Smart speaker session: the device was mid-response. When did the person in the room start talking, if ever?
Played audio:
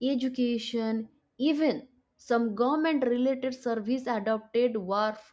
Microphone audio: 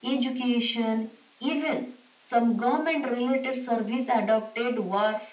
none

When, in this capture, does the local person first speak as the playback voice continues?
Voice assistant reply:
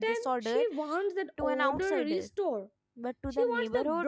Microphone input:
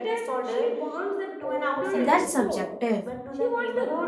1.9 s

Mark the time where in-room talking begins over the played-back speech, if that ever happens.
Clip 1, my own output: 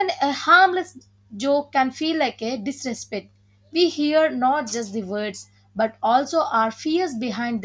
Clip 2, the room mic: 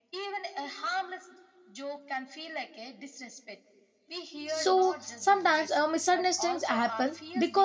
4.5 s

